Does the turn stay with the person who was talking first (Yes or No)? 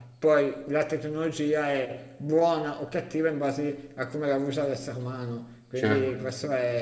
Yes